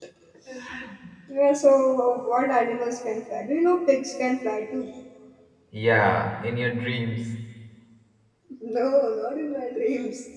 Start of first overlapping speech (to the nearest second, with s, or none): none